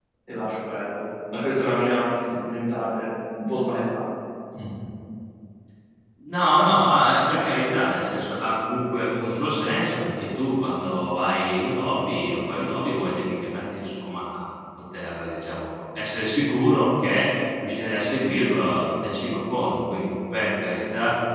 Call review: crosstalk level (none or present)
none